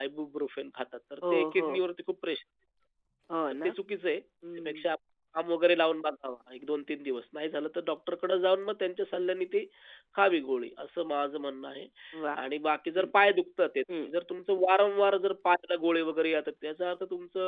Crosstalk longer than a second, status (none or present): none